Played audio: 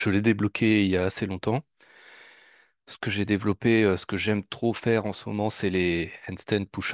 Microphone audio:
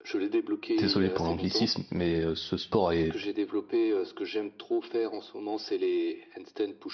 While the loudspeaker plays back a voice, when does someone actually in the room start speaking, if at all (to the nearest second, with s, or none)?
1 s